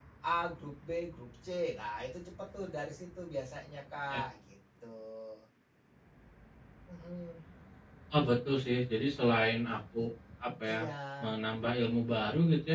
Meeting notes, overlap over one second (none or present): none